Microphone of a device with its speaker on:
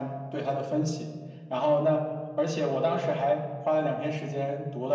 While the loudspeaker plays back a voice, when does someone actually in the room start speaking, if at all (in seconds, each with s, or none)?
none